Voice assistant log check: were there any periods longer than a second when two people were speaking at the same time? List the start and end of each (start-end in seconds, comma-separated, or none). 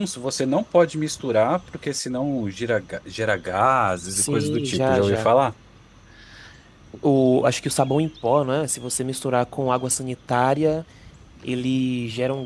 4.1-5.3